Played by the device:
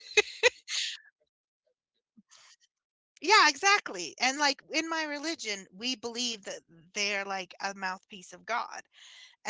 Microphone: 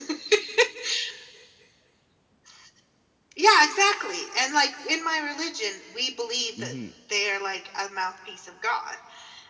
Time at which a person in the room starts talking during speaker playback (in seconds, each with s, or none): 6.6 s